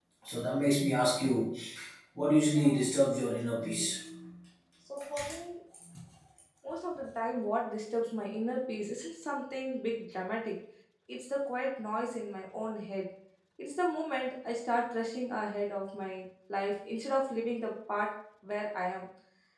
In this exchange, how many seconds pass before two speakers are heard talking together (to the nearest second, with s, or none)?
2 s